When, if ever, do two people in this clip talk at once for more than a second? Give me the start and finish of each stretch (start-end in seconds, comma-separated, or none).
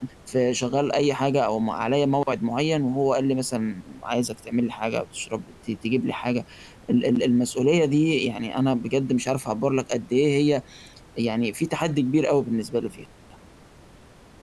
none